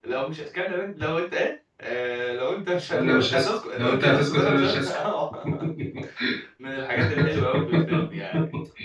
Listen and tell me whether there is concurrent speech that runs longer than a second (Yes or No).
Yes